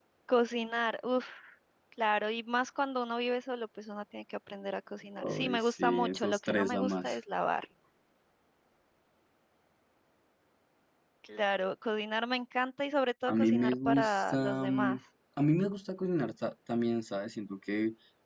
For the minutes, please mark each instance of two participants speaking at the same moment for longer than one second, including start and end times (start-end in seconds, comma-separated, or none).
5.2-7.2, 13.3-15.0